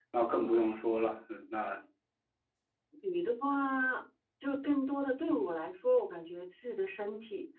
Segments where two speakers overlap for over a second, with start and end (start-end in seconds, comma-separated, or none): none